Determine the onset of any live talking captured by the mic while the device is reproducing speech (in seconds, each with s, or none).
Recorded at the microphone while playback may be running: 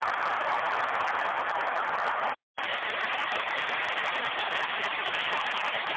none